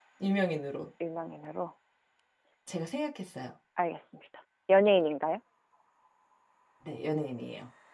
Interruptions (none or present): none